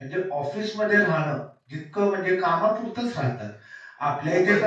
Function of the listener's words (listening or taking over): listening